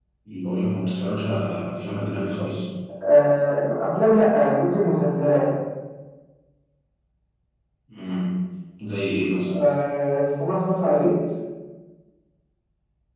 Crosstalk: none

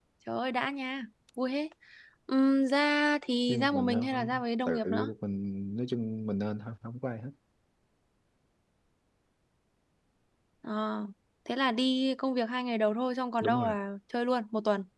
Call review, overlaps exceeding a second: present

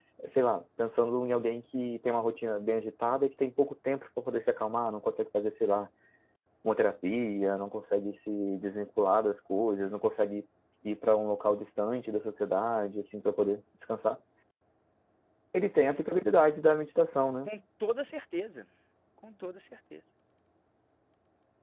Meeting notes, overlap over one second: none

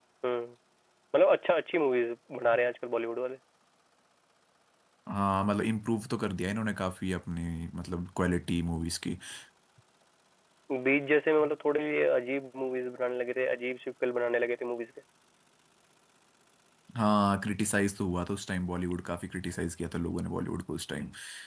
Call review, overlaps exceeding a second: none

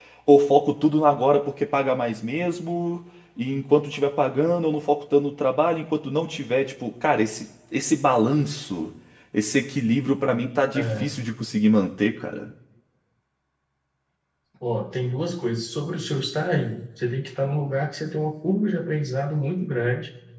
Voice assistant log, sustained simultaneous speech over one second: none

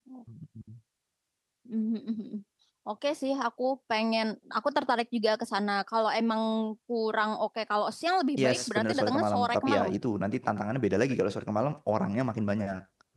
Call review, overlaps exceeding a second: present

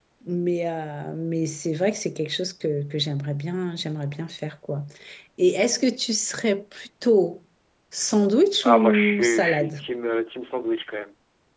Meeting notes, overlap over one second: present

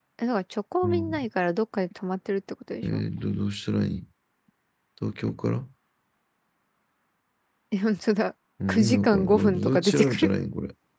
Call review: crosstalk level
present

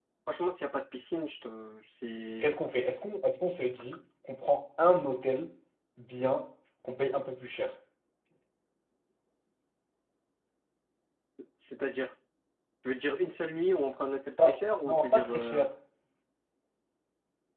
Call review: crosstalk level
present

